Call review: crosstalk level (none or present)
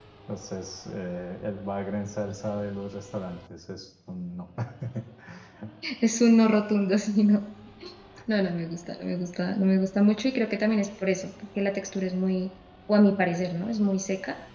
none